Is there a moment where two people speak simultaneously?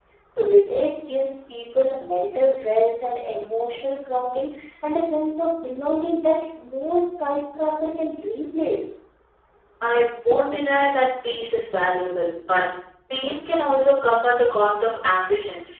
No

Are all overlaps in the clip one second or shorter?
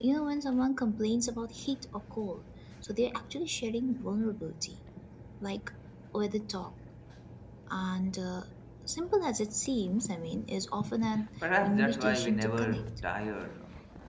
No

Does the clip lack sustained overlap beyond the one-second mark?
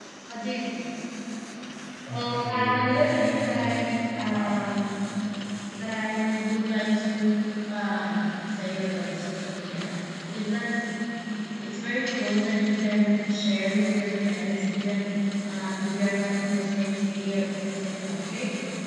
No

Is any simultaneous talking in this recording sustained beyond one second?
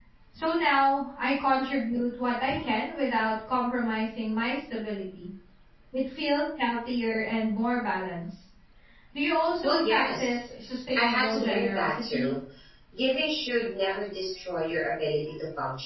Yes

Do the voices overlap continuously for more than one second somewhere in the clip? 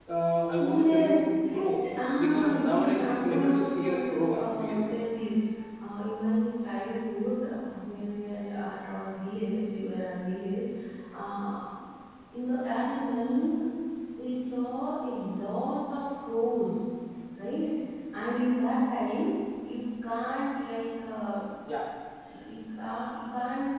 Yes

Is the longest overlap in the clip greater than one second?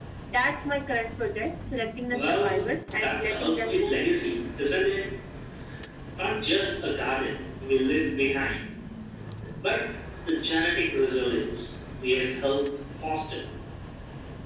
Yes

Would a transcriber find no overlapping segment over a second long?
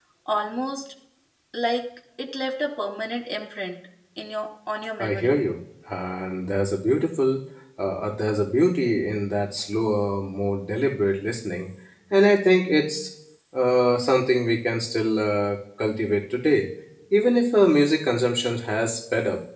Yes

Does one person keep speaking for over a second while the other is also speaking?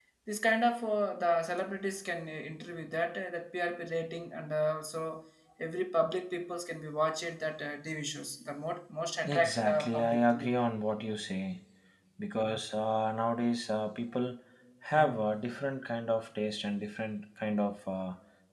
Yes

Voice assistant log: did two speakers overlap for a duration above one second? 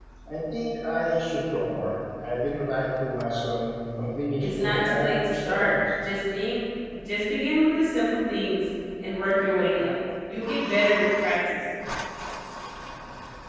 Yes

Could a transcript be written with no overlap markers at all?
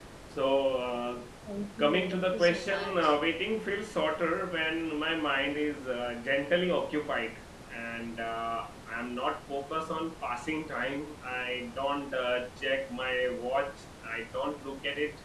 No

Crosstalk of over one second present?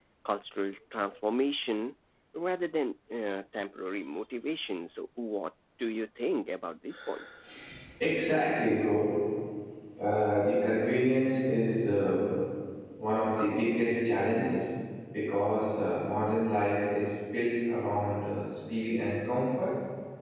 No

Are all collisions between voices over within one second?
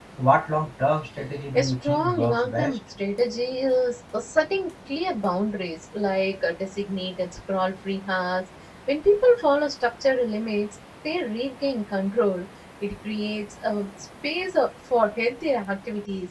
No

